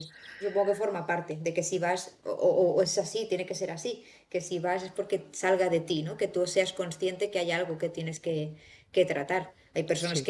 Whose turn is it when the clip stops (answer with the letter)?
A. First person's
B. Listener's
A